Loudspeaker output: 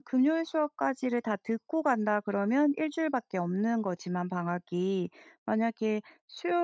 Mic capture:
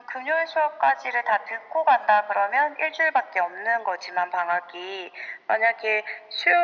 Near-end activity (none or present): none